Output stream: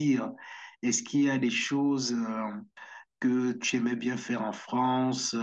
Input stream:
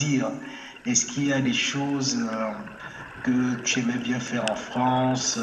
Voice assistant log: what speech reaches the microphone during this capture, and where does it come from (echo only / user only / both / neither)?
echo only